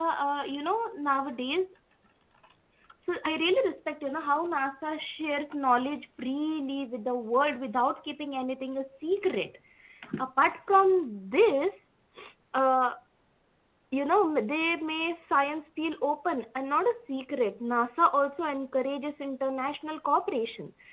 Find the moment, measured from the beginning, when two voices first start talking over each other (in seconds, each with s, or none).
none